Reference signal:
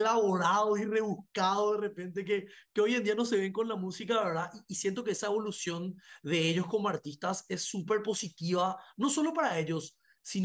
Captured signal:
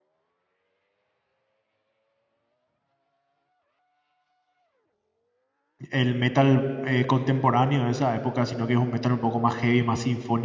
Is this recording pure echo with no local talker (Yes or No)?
No